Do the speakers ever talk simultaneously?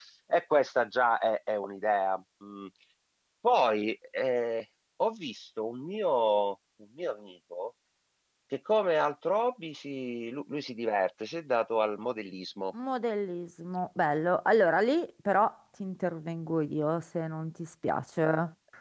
No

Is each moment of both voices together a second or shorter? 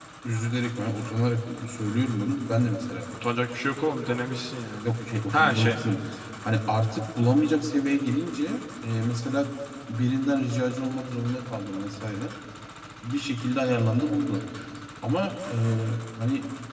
Yes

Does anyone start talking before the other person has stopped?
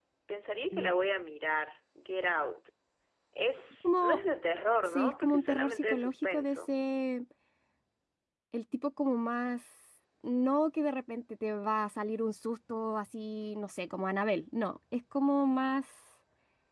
Yes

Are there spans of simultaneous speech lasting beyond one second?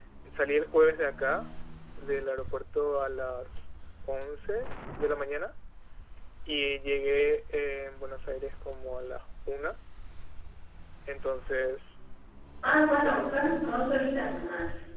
No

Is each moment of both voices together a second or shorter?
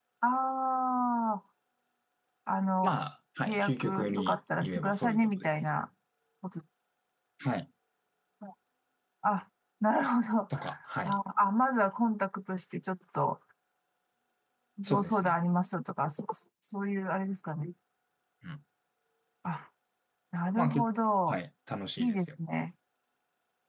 No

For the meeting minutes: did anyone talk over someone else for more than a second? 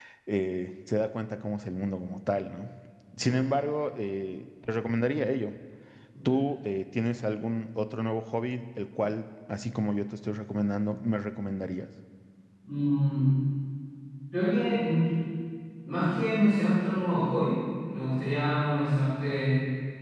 No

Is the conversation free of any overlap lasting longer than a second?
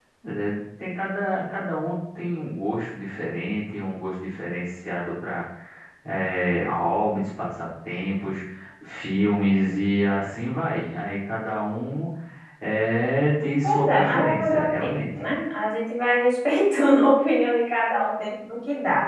No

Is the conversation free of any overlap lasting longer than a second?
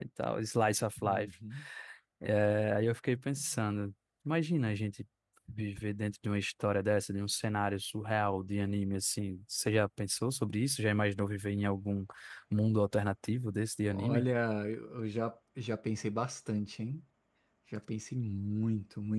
Yes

